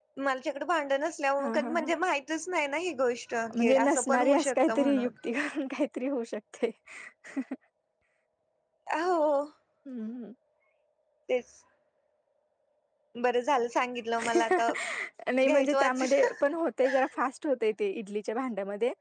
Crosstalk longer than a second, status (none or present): present